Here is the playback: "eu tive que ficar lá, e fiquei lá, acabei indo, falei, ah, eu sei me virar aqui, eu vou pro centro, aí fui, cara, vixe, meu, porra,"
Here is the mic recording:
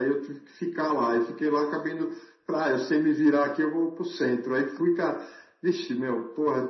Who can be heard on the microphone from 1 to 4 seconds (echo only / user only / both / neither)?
echo only